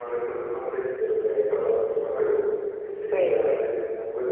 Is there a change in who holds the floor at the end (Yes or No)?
No